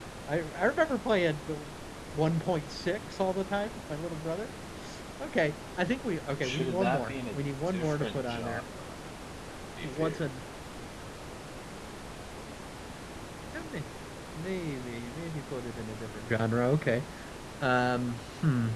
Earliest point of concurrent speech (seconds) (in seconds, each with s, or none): 6.4 s